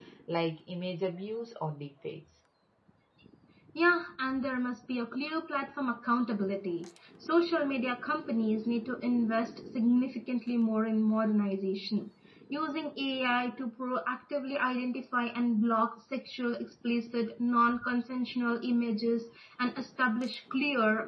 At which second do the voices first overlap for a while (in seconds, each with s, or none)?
none